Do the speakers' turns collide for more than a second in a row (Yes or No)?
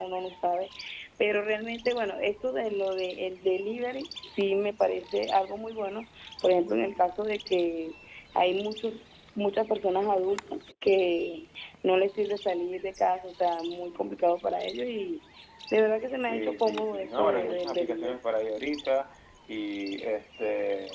Yes